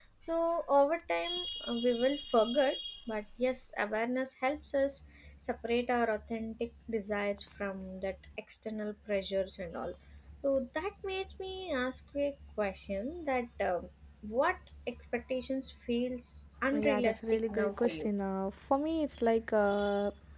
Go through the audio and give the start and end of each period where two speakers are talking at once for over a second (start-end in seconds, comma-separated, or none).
16.9-18.1